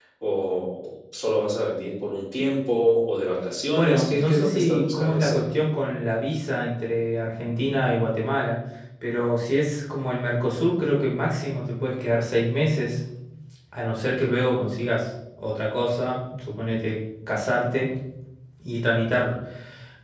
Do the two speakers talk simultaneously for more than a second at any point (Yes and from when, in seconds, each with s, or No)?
Yes, from 3.8 s